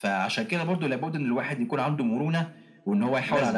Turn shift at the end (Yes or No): No